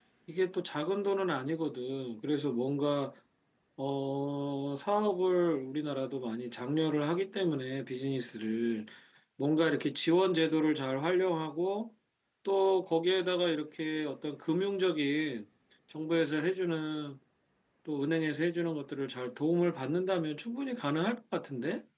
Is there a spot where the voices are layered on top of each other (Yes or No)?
No